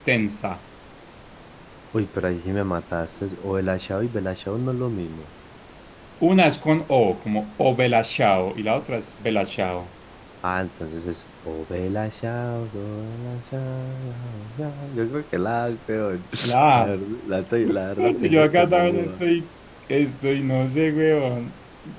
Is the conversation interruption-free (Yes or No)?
No